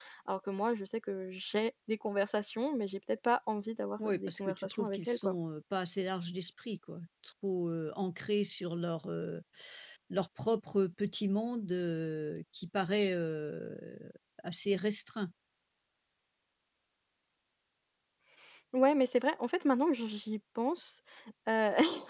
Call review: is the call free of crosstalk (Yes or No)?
No